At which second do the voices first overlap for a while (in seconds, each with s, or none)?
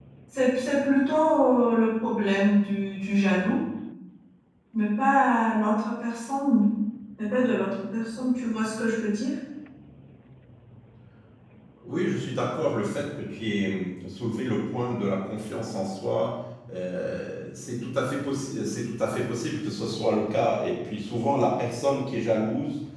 none